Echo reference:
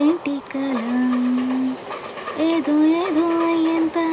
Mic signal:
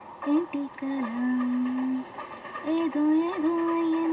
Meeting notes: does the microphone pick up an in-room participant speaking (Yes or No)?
No